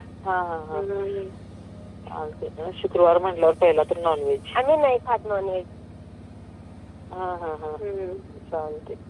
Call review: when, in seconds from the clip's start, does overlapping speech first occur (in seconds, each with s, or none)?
none